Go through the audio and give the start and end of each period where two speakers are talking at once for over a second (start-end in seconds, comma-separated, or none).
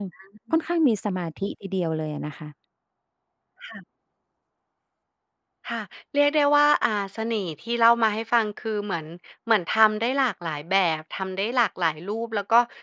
none